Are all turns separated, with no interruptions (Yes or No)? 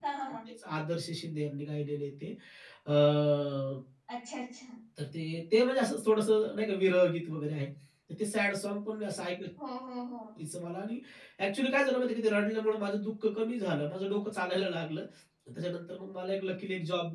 Yes